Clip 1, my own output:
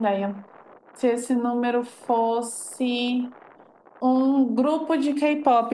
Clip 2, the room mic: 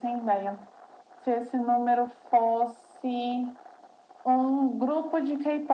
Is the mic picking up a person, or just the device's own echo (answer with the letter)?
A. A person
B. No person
B